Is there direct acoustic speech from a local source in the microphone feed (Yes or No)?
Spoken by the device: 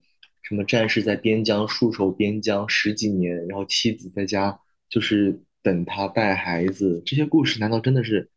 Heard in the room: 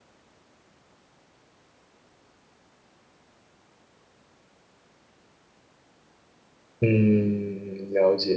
Yes